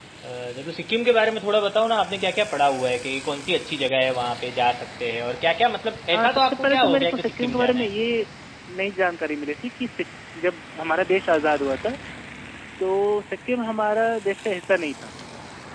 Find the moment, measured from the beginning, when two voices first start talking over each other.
6.1 s

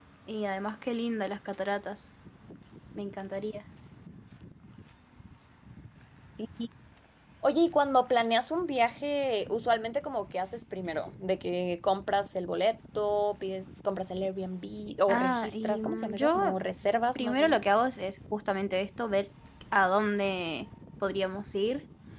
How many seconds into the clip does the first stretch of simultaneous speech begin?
15.1 s

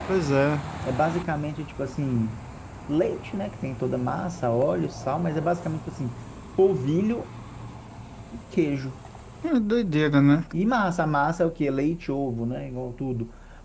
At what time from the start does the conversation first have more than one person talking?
none

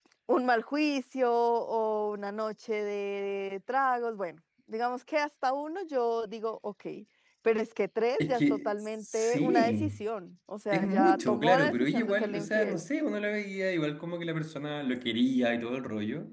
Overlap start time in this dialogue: 8.2 s

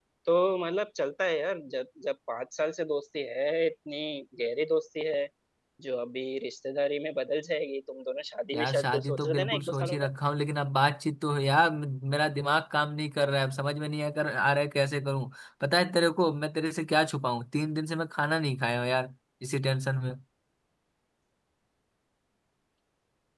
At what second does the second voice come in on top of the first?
8.5 s

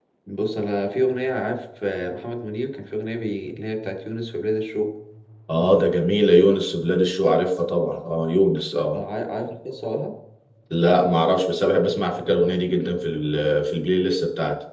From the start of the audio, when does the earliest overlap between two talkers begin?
none

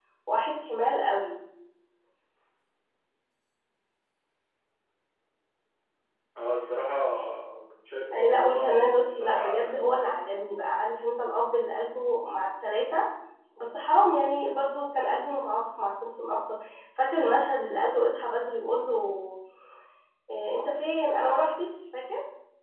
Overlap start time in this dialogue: 8.1 s

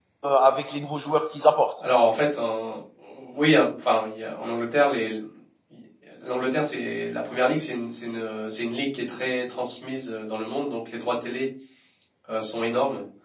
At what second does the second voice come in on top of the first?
none

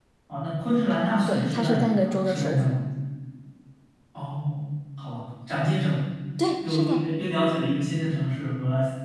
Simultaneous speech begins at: 1.3 s

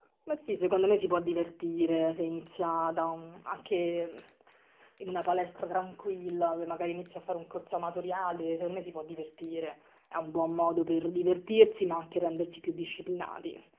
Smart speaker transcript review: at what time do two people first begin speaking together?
none

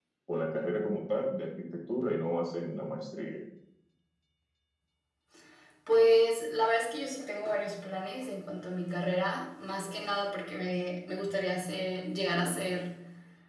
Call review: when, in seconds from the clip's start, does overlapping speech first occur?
none

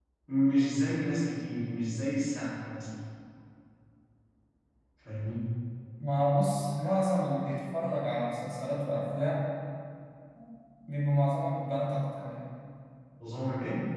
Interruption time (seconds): none

